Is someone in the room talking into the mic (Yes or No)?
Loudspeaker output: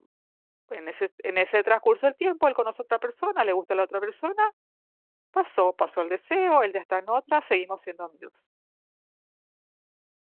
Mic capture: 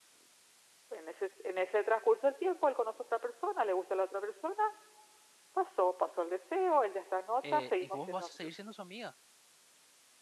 Yes